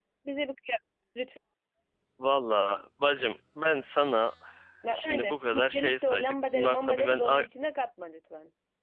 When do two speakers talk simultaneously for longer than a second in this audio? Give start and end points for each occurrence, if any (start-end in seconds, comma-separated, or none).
4.9-7.4